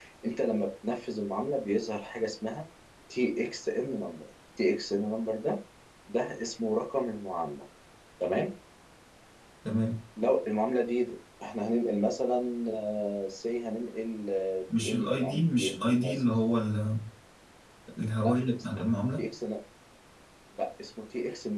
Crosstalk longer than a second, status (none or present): present